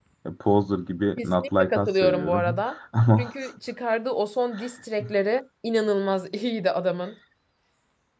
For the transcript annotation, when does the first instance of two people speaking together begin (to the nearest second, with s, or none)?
1 s